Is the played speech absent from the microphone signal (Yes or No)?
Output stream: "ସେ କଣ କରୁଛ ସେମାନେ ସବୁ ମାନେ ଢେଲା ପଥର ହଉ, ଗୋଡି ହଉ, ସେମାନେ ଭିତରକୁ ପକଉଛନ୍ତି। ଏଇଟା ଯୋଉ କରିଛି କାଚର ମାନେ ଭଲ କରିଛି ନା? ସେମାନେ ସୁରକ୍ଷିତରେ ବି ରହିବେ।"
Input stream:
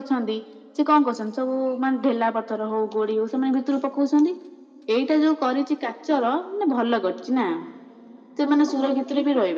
No